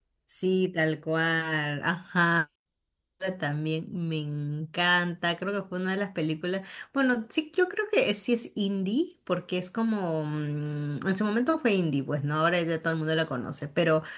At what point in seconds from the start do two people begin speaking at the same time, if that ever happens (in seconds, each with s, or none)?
none